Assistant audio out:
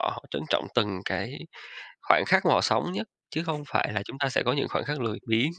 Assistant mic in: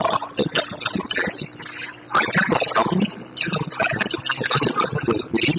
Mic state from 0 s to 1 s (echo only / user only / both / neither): echo only